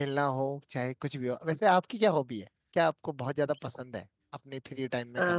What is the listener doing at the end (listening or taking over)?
taking over